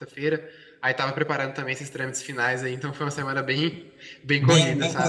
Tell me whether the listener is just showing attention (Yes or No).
No